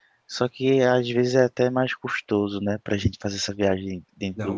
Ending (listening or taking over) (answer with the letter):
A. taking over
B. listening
A